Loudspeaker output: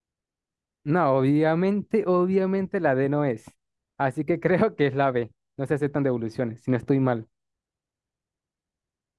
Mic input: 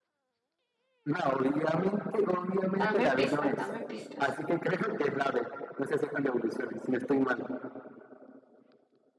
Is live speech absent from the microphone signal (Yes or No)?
No